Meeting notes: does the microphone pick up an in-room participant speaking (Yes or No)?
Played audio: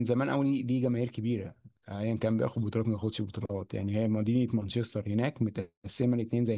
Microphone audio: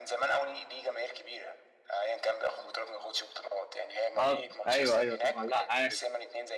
Yes